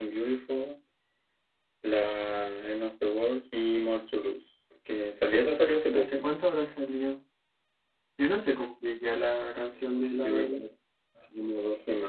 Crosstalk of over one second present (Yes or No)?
No